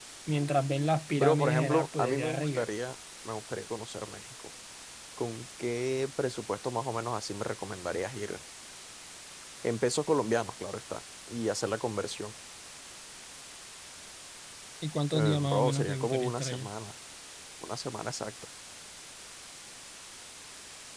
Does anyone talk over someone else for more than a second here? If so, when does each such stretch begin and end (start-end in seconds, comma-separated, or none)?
1.2-2.7, 15.1-16.7